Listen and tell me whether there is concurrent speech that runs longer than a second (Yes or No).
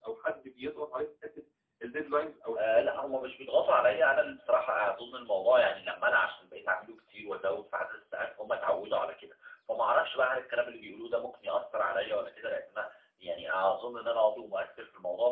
No